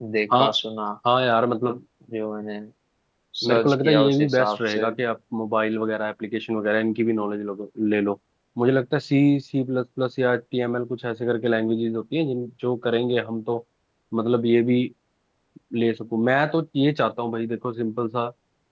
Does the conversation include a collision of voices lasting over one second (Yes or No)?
Yes